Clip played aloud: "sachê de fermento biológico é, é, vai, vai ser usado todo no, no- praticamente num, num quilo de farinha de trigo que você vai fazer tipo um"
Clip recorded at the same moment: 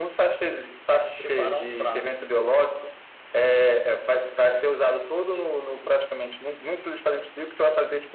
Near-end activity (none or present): present